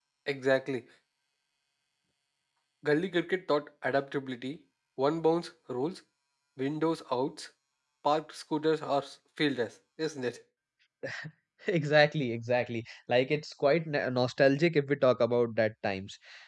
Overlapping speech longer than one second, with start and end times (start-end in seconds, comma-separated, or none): none